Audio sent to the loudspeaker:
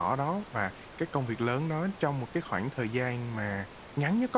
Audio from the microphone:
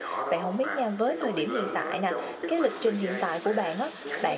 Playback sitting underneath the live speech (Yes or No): Yes